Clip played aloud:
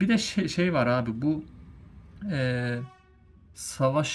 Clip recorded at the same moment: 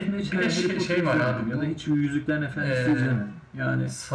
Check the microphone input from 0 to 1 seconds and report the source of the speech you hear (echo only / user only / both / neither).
both